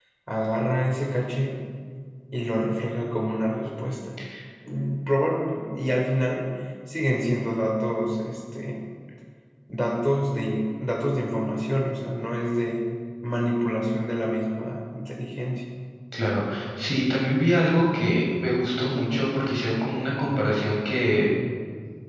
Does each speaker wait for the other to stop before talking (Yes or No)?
Yes